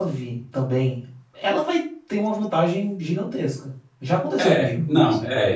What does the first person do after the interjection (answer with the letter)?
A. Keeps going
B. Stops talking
B